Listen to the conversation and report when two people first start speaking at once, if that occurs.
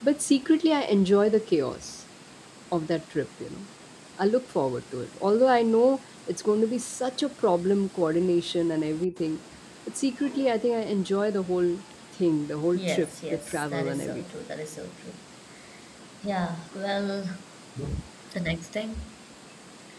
12.7 s

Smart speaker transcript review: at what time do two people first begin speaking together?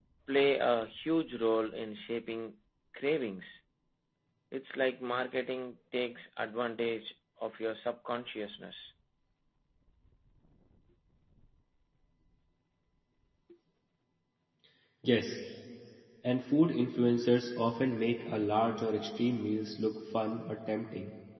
none

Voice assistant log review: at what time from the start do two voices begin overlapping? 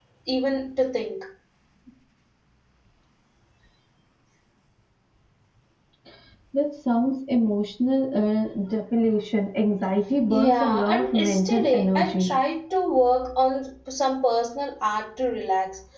10.3 s

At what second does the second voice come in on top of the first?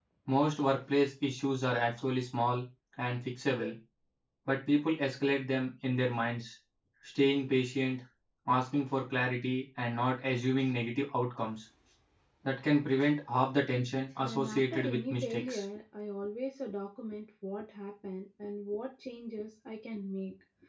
14.2 s

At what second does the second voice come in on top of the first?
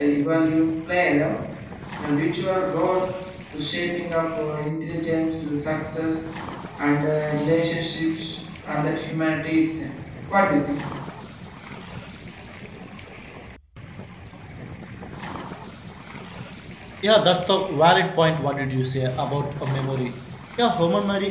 none

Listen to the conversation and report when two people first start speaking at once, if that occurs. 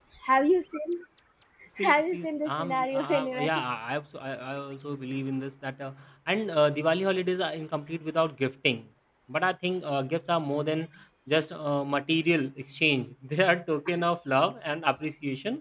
1.8 s

